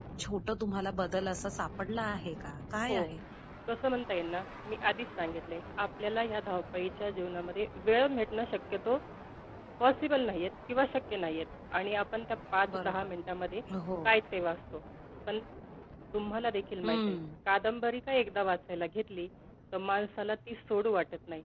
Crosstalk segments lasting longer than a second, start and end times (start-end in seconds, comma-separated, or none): none